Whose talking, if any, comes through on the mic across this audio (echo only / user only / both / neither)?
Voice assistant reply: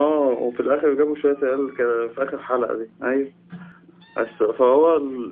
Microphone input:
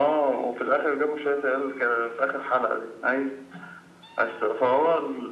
echo only